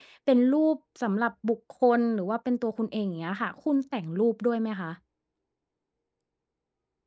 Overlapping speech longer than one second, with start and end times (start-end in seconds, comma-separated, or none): none